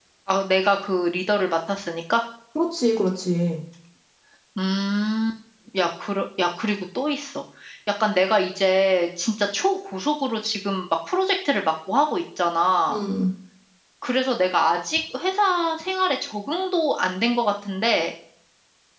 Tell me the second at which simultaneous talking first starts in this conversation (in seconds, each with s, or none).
none